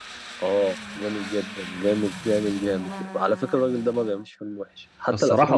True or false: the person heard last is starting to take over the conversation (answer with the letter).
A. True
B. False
B